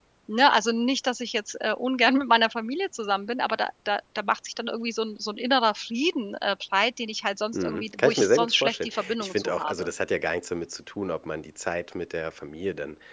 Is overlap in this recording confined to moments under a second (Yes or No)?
No